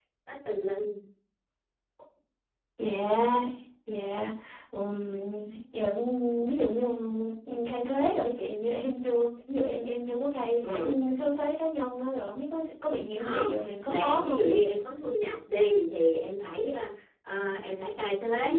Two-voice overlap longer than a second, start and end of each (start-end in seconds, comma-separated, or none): 13.2-14.6